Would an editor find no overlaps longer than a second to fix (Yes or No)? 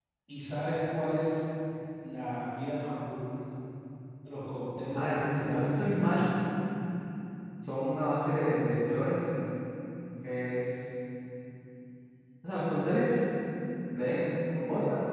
No